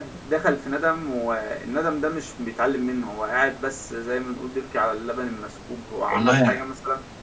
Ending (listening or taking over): listening